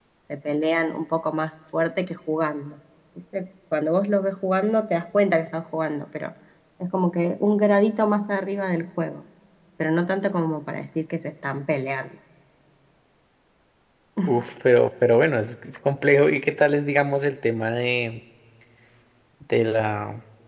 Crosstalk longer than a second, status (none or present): none